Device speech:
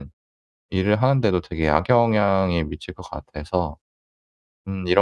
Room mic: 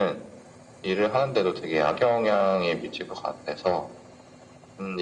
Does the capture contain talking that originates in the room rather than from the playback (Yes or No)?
No